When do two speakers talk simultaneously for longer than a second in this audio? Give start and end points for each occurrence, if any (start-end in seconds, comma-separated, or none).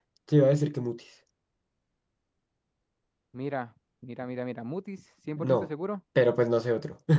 none